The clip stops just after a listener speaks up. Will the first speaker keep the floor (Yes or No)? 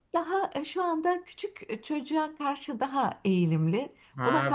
No